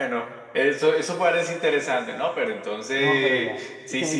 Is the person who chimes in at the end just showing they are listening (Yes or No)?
No